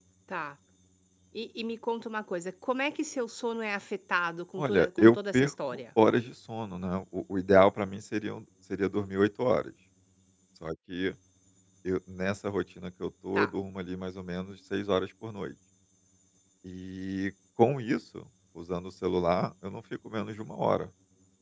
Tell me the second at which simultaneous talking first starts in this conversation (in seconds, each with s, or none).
4.6 s